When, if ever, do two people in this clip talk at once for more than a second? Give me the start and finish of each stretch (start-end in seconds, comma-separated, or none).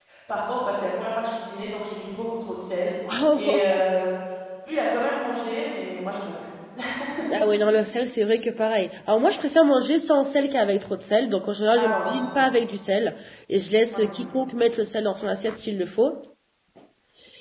none